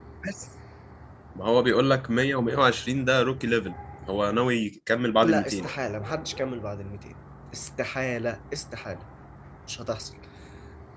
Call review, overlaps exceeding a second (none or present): none